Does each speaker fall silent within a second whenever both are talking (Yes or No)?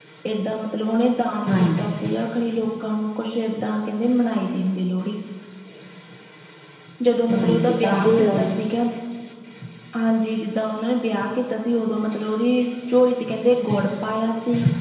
No